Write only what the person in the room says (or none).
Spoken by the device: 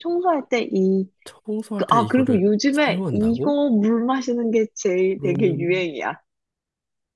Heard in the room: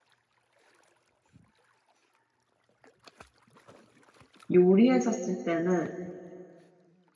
요리했었을 때는